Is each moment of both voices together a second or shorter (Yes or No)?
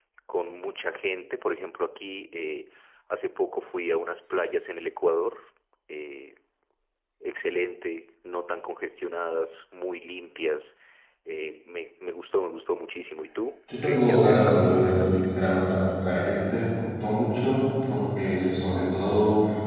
No